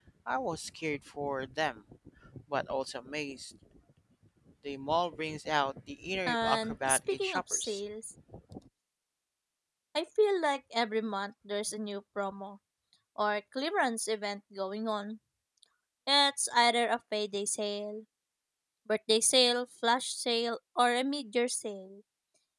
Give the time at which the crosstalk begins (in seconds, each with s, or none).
6.3 s